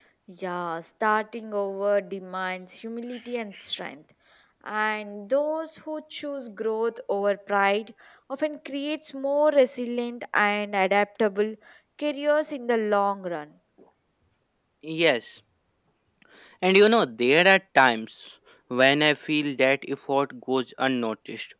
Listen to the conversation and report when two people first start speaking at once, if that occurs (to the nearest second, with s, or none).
none